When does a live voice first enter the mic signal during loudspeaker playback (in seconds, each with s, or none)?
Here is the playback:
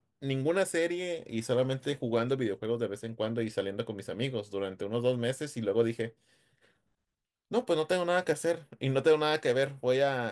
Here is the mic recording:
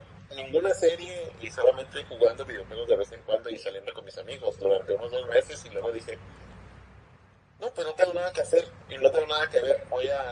none